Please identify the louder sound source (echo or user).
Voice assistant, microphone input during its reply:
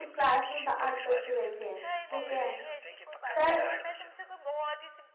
user